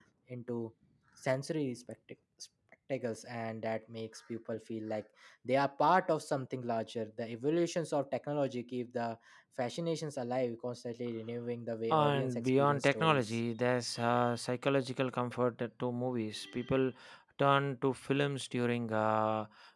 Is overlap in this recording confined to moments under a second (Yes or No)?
No